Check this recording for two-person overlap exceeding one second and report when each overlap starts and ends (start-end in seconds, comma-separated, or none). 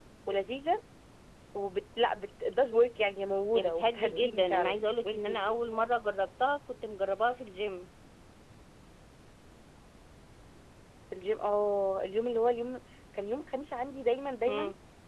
3.5-5.4